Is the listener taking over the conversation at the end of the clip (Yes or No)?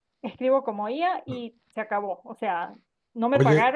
No